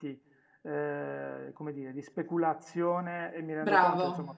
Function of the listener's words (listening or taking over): listening